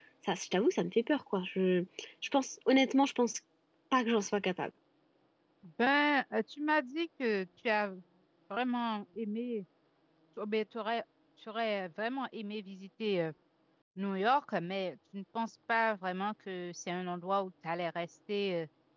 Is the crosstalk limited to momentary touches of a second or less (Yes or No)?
Yes